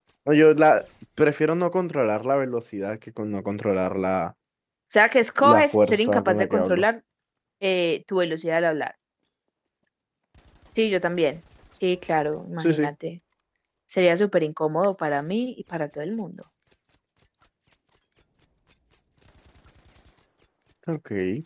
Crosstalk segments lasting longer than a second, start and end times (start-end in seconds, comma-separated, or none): 5.4-6.8